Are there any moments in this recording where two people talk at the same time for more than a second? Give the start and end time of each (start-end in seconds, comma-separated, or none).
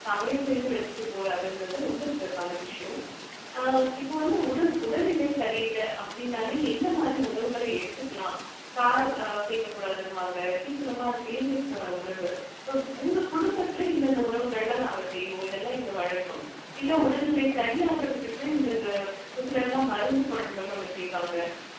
none